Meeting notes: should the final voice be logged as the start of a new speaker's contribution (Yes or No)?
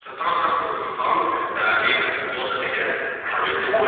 Yes